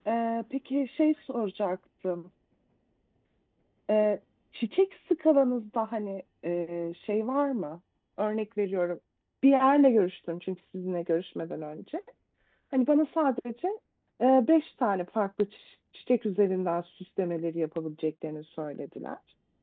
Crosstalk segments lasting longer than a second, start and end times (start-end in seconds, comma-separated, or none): none